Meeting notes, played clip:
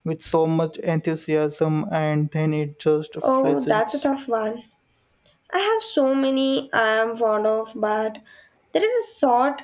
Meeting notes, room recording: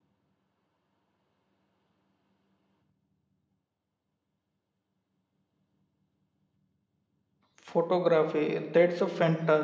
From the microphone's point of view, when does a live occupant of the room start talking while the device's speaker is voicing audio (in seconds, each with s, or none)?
7.6 s